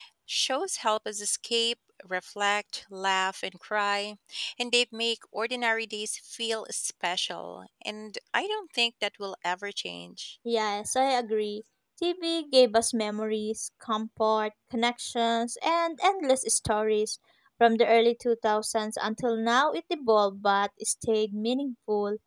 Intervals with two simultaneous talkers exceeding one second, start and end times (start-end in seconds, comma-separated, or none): none